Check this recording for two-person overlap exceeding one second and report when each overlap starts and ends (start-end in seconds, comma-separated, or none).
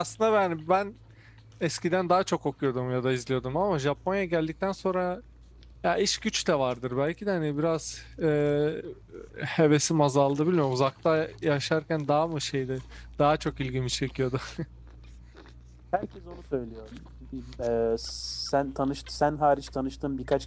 none